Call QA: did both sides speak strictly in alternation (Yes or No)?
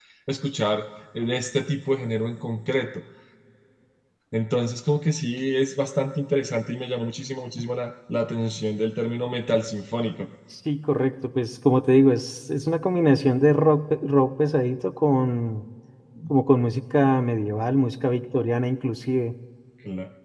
Yes